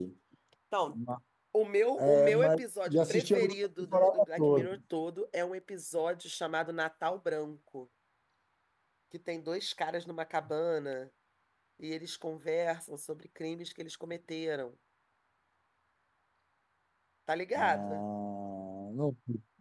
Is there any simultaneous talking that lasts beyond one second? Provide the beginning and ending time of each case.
2.0-4.7

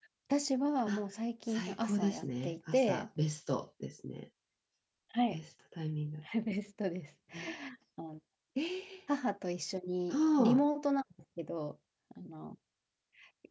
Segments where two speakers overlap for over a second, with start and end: 1.5-3.0

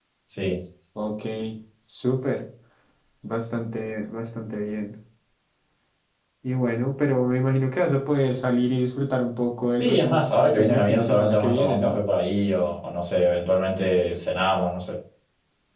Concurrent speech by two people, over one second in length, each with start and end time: 9.8-12.0

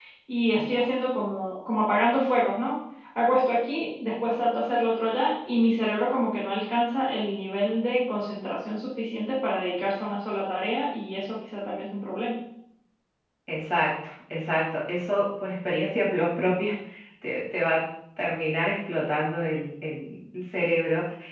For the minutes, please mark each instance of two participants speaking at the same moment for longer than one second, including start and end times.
none

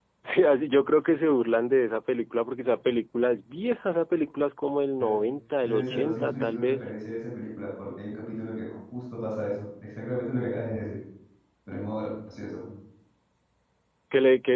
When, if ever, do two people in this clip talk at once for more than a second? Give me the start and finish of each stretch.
5.6-6.9

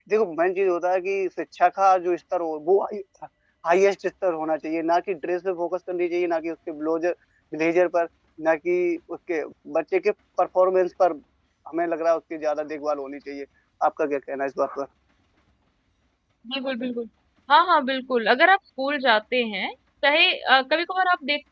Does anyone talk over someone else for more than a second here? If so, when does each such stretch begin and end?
none

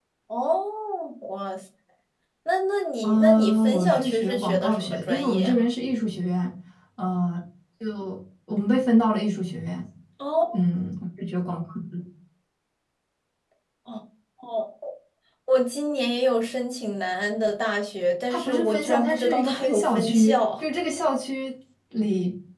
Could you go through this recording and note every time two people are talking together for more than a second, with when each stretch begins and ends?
3.0-5.6, 18.3-20.6

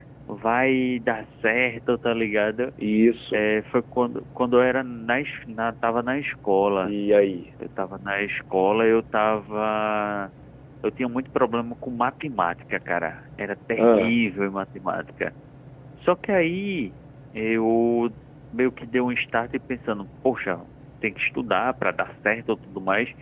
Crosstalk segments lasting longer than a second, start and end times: none

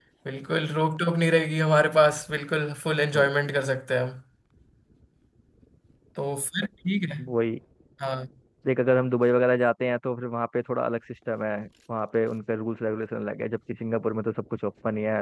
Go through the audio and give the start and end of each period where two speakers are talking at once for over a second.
none

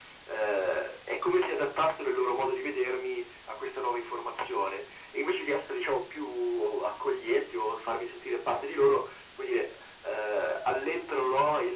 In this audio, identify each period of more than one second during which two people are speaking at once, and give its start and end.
none

